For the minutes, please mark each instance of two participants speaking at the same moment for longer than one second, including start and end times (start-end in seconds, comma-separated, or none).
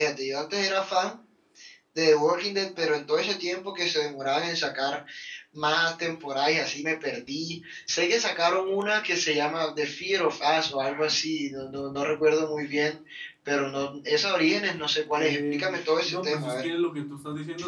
15.1-16.7